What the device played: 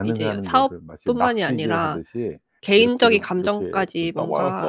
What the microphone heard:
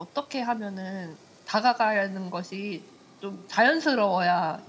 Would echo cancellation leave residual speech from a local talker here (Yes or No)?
Yes